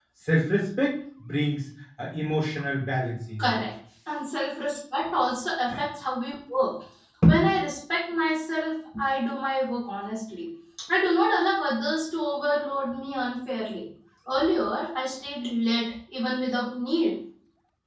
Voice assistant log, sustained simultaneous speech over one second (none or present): none